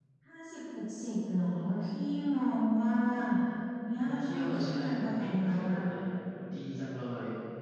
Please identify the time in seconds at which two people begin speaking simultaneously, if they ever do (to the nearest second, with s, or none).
4 s